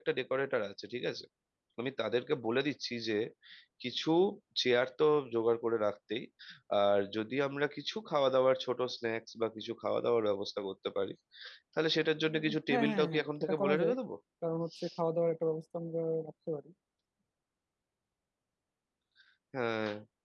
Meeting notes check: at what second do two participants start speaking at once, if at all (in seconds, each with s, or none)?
12.3 s